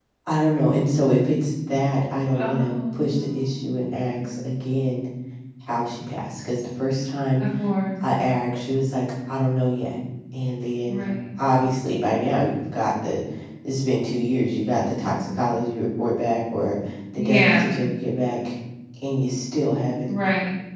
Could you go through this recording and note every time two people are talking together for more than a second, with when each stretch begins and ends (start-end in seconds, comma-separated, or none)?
2.3-3.6